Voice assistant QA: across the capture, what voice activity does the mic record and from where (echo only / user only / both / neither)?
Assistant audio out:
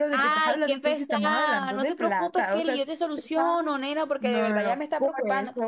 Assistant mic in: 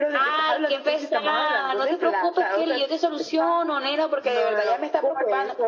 echo only